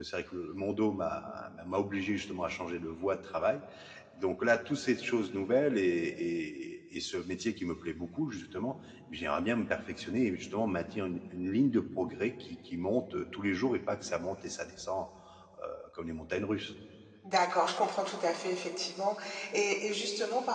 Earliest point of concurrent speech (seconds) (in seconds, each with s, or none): none